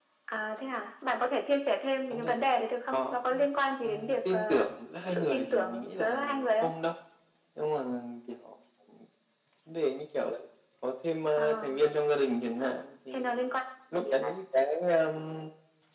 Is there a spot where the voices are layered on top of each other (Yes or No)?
Yes